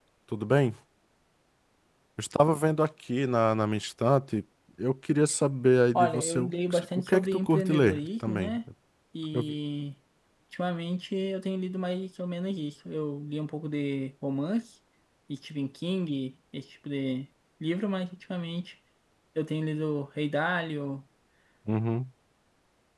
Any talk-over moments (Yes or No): Yes